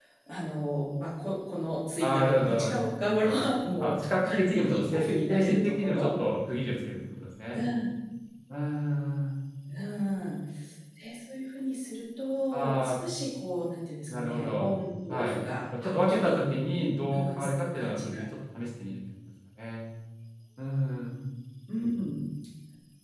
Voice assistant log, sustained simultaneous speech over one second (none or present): present